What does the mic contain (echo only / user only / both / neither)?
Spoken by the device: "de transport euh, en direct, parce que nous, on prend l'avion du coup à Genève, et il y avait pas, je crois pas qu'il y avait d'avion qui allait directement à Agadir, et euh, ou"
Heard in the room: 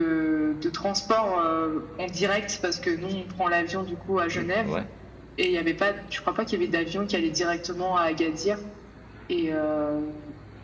both